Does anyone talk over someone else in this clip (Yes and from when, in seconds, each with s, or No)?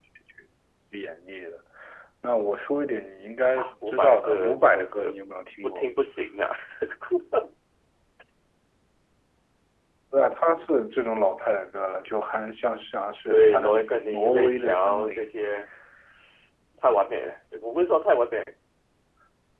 Yes, from 3.6 s